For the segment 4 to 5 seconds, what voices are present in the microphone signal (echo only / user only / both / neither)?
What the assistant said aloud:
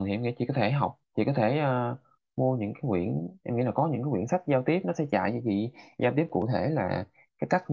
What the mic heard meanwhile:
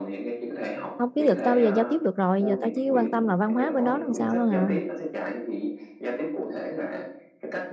both